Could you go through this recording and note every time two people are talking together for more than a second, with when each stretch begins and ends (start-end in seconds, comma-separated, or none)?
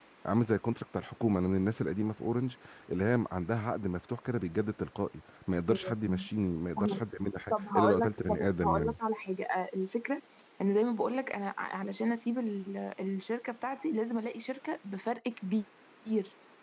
7.5-8.9